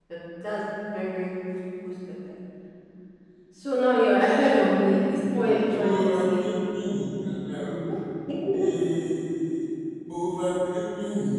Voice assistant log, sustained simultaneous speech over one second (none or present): present